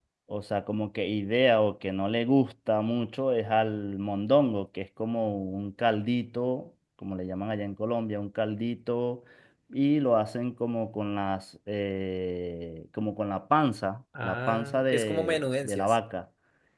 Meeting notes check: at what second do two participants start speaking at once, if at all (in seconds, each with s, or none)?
14.2 s